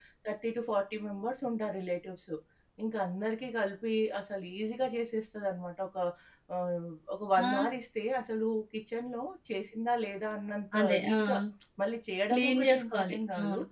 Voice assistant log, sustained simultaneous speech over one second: present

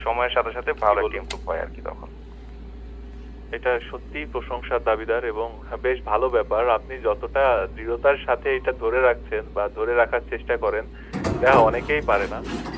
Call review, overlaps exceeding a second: none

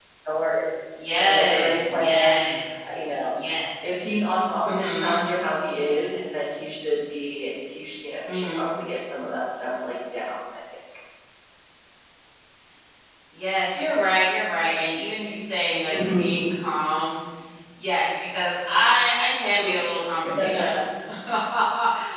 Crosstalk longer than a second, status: present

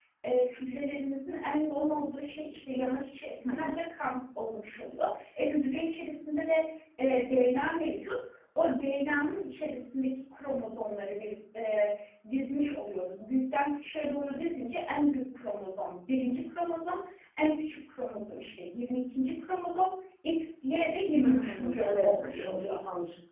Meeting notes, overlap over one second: present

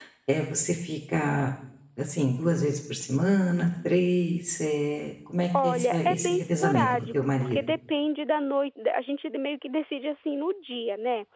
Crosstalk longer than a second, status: present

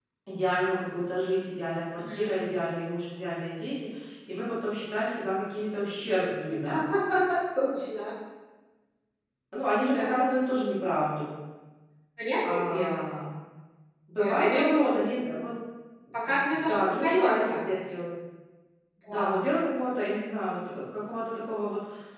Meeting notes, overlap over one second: present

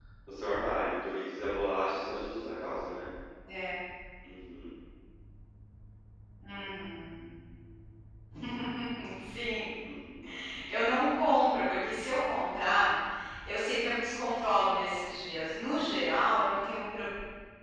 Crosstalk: none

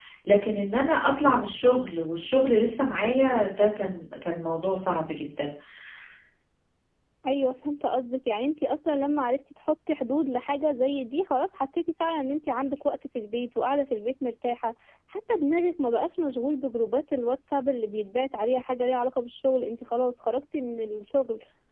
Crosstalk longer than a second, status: none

